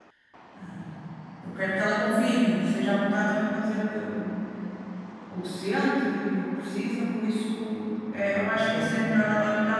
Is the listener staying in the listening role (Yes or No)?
Yes